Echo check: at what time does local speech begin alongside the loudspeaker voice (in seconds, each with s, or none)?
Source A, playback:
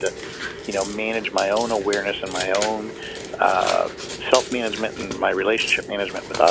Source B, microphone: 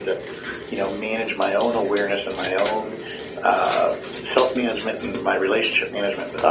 none